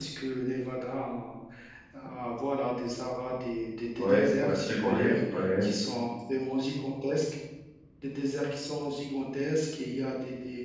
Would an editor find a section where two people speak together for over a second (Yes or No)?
Yes